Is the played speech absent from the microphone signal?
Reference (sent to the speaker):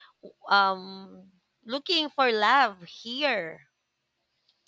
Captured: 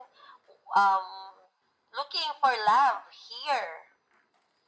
No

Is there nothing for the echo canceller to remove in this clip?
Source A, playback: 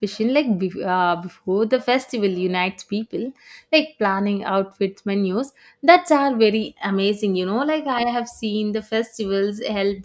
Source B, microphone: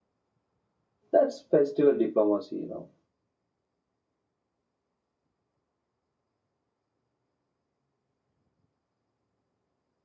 Yes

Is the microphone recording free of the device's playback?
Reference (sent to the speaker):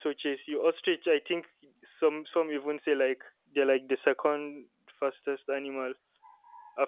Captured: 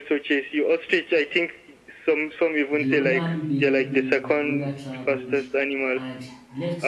No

